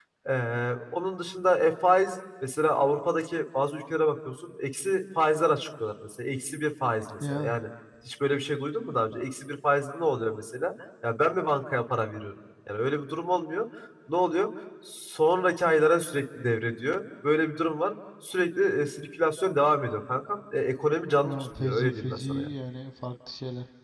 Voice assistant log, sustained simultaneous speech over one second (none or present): present